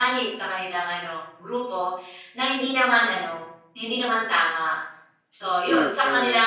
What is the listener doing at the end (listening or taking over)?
listening